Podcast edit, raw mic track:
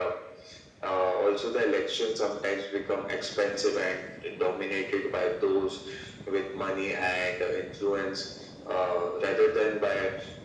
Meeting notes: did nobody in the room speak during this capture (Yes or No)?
Yes